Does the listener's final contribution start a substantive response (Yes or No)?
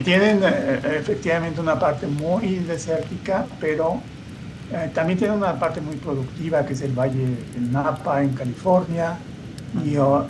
No